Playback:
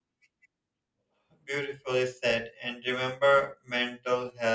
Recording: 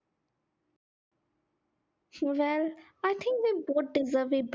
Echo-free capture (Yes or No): Yes